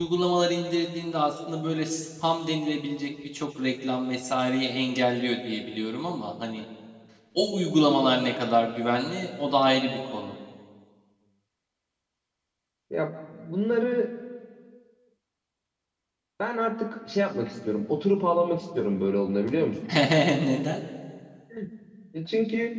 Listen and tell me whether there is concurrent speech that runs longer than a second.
No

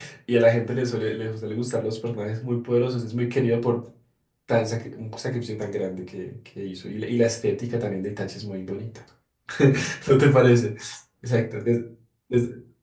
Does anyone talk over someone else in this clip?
No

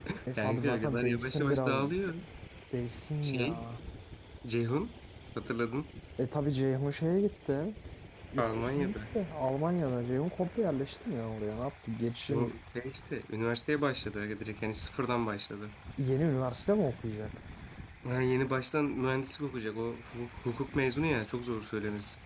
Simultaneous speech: Yes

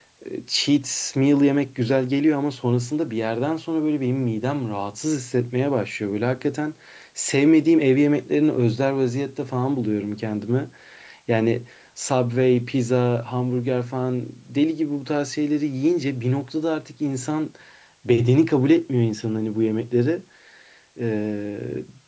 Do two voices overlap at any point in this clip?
No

